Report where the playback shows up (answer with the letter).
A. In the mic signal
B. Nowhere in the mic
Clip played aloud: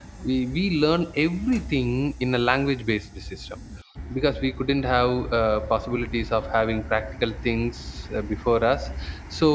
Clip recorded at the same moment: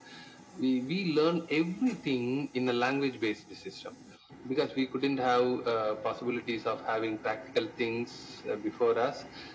A